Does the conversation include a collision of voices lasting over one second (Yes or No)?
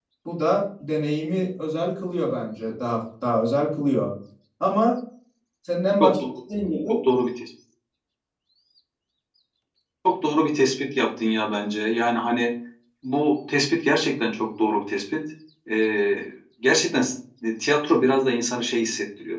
No